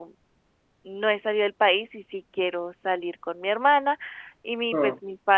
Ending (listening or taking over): listening